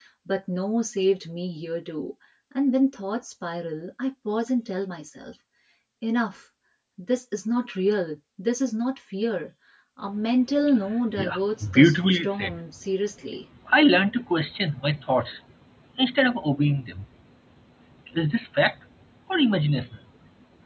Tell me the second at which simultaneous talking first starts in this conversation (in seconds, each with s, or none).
11.1 s